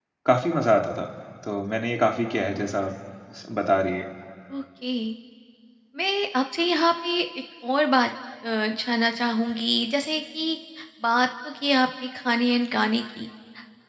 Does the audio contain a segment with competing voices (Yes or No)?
No